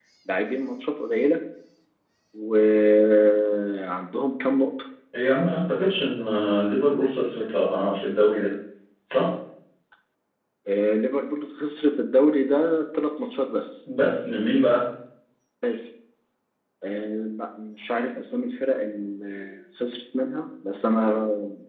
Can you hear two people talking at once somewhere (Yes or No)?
No